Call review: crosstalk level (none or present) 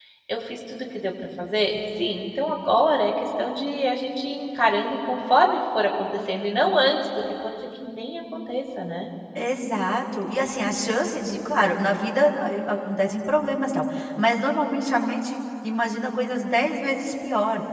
none